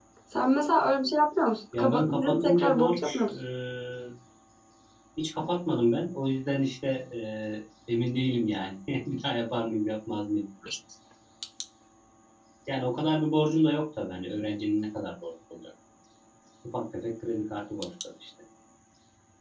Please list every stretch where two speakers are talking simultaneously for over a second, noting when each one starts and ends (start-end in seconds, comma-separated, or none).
1.8-3.2